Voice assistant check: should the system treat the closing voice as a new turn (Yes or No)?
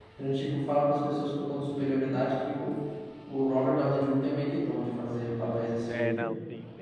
Yes